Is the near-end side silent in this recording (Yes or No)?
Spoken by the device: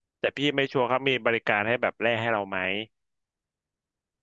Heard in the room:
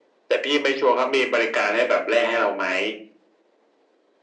Yes